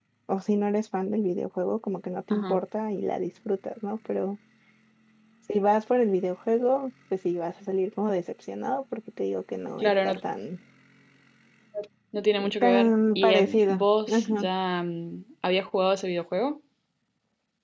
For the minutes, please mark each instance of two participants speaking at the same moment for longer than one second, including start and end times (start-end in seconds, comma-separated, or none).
12.6-14.5